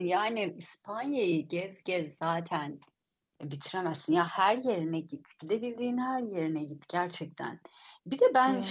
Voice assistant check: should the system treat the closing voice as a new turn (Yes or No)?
No